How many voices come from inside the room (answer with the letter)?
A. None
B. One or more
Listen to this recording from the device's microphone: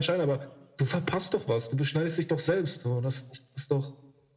A